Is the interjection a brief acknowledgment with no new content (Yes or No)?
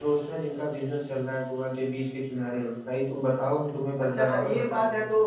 No